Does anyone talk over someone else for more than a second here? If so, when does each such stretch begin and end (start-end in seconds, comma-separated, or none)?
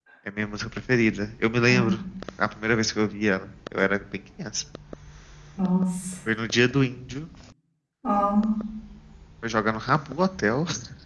none